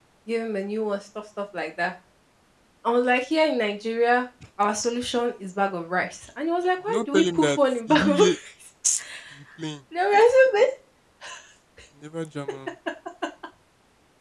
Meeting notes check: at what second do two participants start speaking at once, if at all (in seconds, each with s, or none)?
6.9 s